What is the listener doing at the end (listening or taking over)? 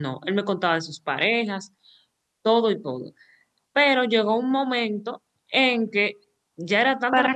taking over